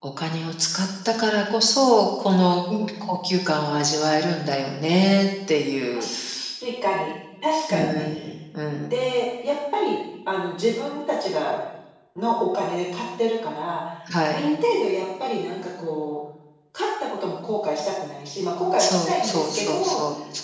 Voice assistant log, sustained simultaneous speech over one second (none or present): present